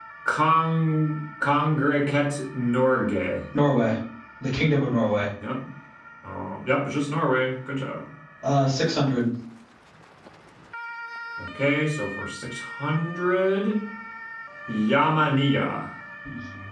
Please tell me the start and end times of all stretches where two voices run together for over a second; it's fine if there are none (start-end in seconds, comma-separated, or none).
none